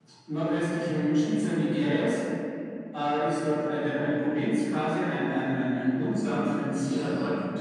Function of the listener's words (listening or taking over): taking over